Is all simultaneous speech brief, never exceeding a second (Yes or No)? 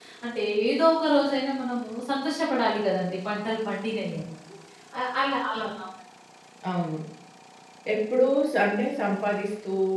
Yes